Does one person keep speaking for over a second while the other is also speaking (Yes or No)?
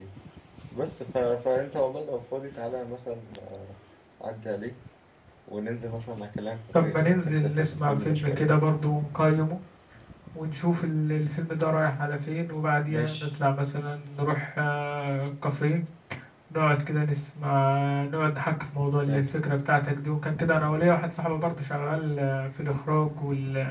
Yes